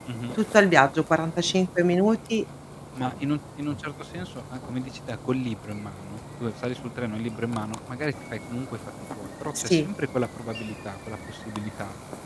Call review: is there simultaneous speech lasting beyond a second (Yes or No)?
No